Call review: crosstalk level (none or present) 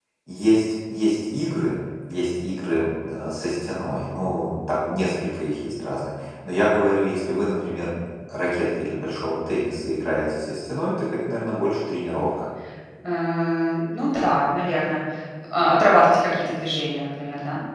none